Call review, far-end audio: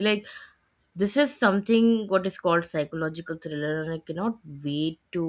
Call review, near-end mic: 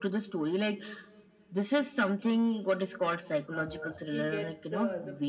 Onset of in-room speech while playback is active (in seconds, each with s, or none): 3.5 s